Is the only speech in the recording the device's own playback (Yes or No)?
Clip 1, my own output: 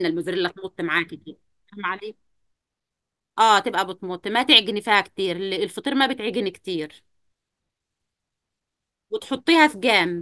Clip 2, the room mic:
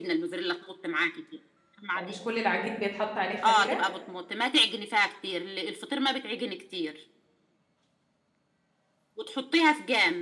No